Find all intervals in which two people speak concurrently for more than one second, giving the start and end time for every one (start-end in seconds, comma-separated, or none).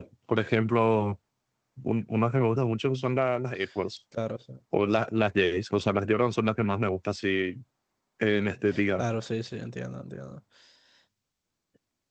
none